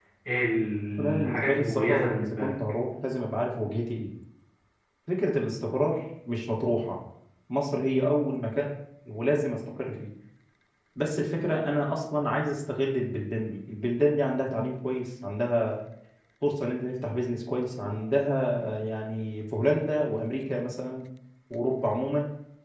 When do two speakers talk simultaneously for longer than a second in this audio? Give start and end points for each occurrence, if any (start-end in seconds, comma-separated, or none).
1.0-2.5